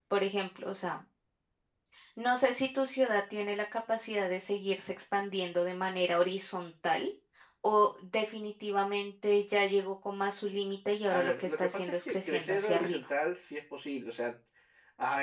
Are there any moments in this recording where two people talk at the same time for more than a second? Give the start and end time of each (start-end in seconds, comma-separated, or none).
11.1-13.1